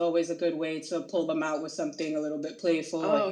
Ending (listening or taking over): listening